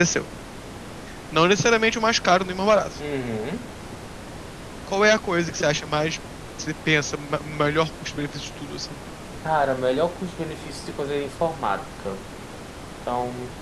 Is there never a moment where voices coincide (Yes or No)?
Yes